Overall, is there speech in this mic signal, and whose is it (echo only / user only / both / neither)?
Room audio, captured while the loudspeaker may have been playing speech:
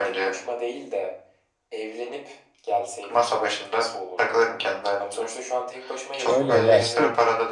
both